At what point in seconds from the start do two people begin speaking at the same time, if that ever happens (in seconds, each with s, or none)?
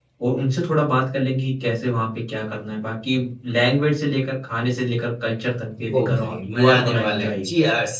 5.9 s